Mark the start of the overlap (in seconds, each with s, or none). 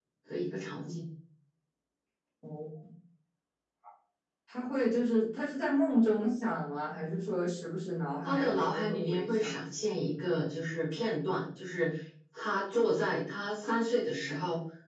8.2 s